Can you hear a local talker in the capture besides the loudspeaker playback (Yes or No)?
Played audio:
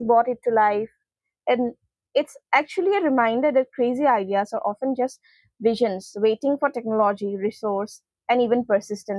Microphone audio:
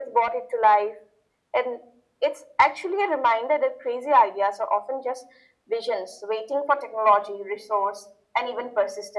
No